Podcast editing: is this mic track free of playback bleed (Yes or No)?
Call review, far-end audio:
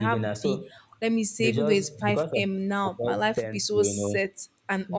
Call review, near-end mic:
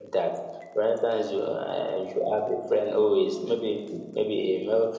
Yes